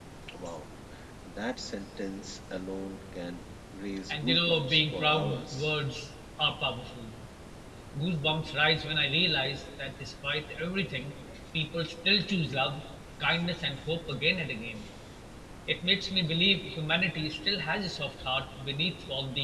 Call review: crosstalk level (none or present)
present